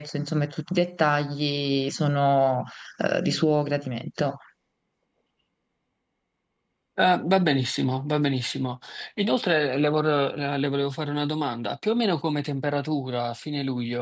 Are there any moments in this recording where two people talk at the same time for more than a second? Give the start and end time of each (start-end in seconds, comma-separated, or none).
none